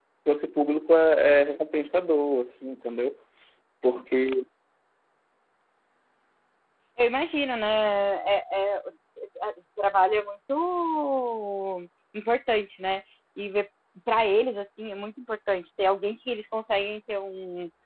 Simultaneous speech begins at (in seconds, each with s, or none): none